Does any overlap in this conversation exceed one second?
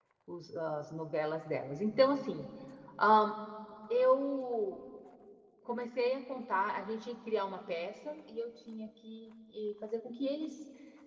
No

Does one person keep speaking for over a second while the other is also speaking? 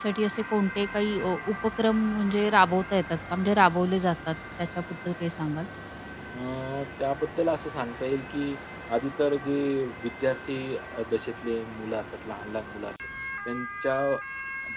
No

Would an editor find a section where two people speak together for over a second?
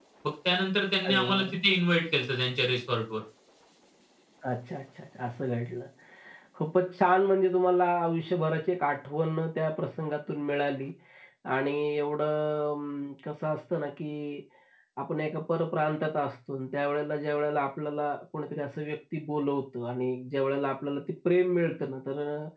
No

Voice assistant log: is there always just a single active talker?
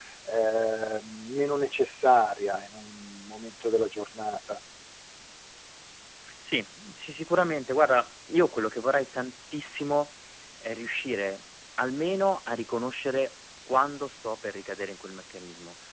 Yes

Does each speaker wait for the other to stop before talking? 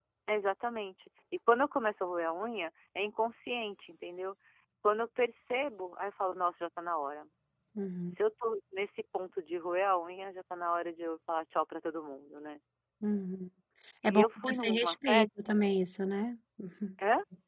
No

